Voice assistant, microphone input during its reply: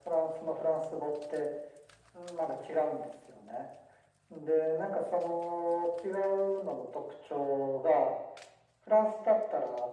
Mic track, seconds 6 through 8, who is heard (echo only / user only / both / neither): echo only